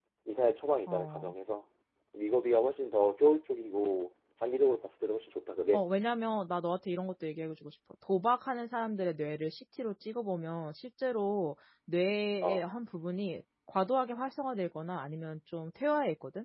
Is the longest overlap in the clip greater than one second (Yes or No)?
No